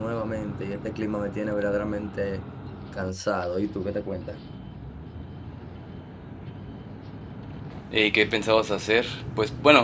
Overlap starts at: none

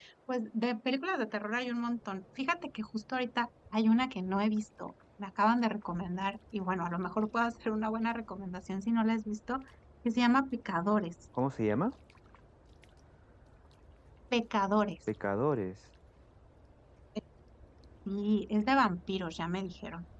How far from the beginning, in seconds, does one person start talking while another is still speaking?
none

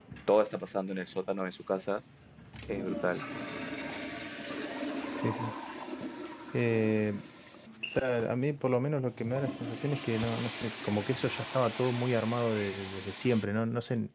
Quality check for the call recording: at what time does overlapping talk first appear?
none

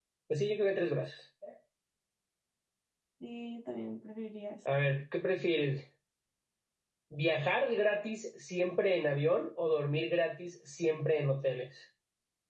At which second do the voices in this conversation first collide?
none

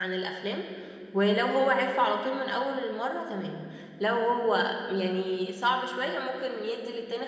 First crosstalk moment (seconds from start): none

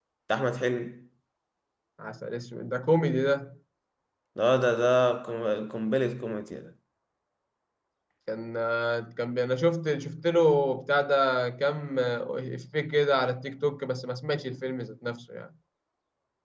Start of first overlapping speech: none

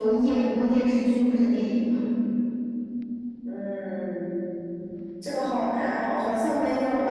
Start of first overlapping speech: none

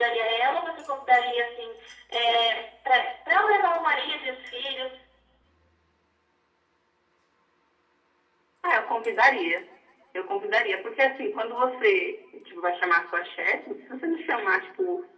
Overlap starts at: none

